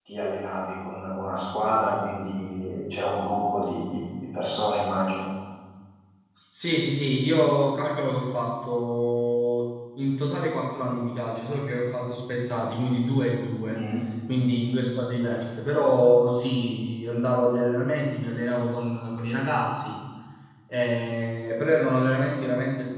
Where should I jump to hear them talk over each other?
none

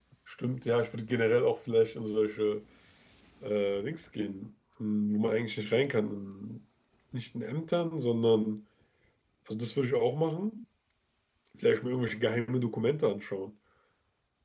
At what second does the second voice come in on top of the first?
none

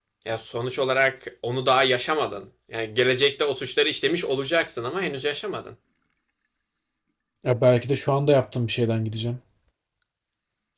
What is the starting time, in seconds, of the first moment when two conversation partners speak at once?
none

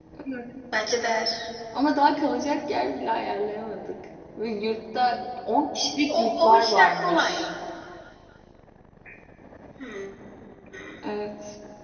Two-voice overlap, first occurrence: 6 s

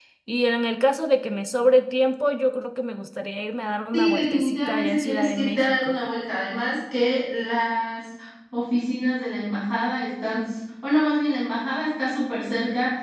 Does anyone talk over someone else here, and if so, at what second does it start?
4 s

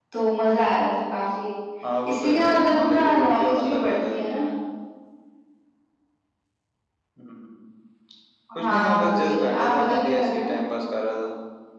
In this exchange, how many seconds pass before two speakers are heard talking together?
2 s

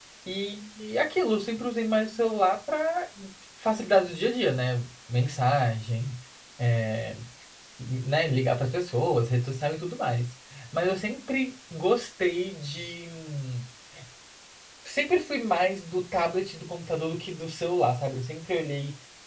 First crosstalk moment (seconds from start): none

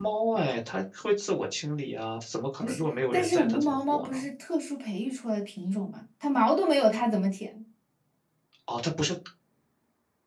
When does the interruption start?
3 s

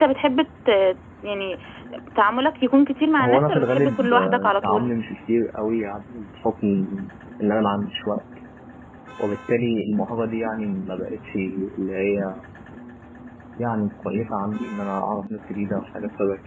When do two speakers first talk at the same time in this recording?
3 s

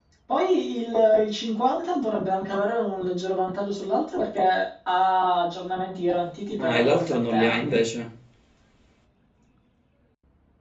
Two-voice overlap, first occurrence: 7 s

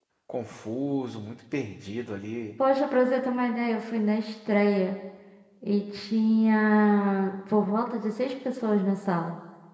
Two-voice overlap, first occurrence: none

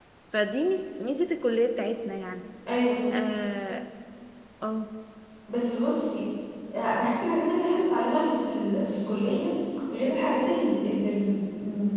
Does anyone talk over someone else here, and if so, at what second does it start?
none

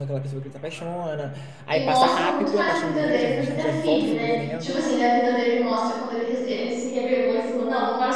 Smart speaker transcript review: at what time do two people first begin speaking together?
2 s

